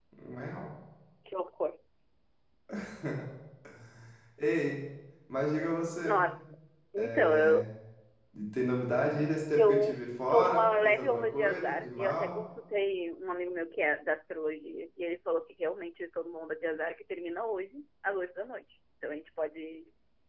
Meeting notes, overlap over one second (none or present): present